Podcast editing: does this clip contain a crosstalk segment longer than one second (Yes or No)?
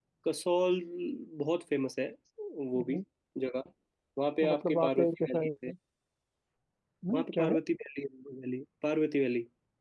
Yes